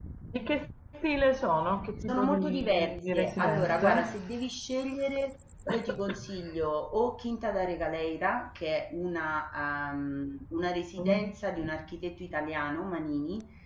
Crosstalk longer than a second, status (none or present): present